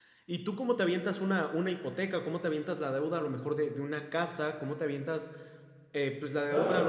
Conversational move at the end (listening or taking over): listening